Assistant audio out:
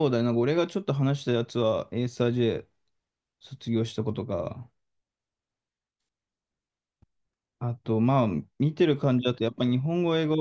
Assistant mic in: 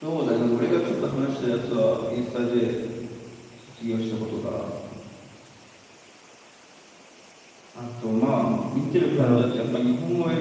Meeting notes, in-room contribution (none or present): present